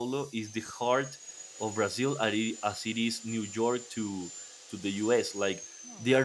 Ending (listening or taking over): listening